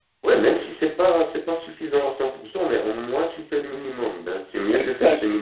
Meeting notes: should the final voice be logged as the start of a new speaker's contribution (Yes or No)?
No